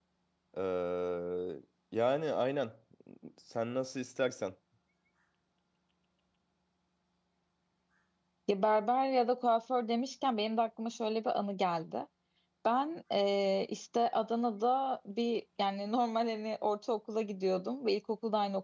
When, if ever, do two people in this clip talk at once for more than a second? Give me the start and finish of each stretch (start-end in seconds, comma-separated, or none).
none